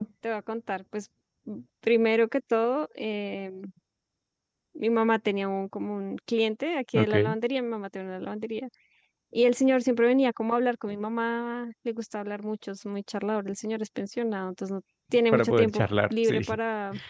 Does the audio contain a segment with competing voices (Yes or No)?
Yes